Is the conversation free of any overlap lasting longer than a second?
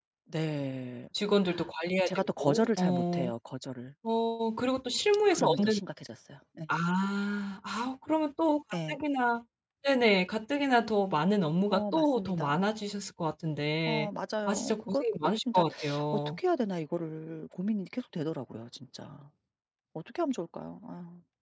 No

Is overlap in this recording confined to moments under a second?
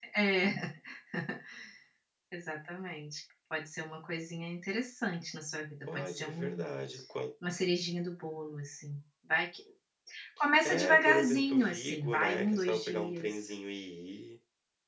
No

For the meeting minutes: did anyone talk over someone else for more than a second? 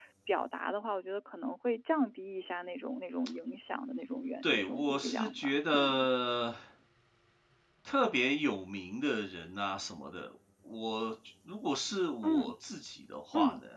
Yes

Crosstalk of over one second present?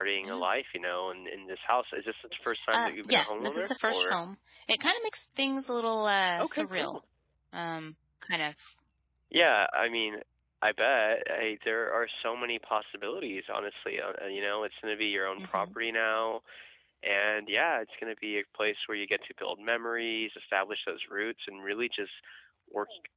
Yes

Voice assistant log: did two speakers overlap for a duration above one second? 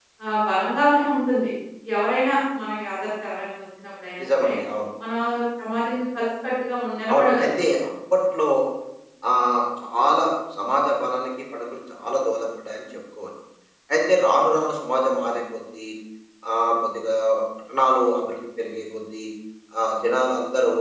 No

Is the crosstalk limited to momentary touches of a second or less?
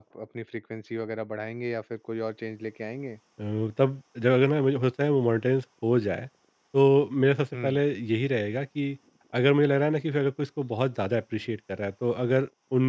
Yes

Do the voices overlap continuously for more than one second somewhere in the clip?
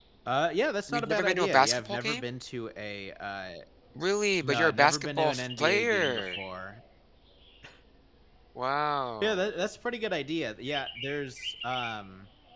Yes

